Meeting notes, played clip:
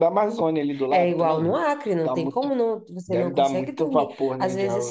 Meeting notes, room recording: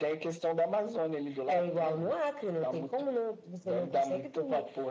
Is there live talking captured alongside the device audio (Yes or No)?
No